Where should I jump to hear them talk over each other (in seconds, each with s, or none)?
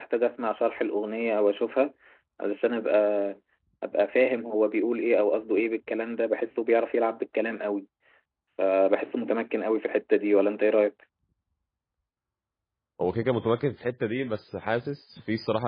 none